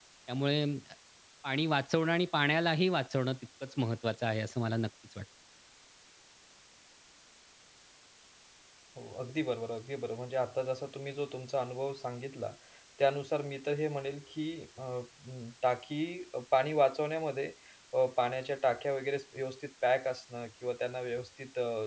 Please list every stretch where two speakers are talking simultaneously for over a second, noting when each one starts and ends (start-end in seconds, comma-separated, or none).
none